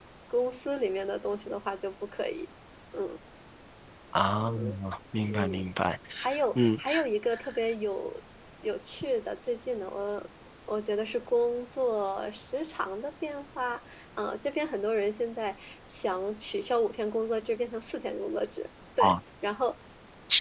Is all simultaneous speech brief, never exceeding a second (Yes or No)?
Yes